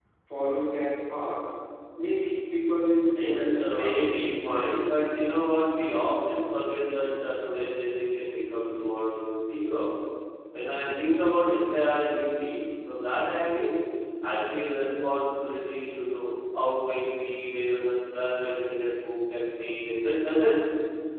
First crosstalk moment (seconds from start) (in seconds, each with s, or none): 3.1 s